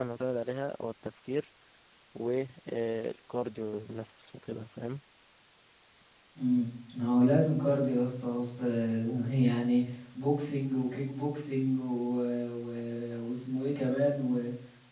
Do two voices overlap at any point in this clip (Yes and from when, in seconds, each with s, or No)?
No